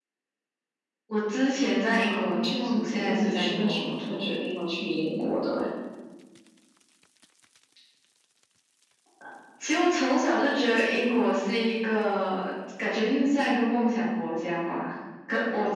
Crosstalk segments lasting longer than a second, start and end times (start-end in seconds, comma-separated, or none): 2.1-4.3